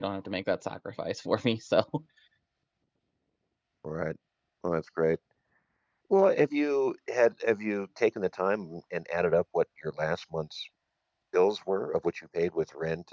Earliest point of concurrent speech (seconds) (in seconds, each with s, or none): none